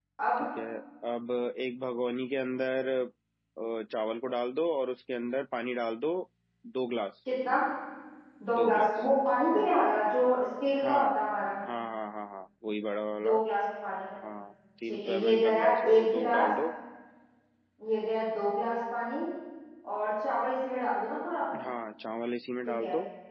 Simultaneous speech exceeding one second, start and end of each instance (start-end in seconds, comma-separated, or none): 14.9-16.5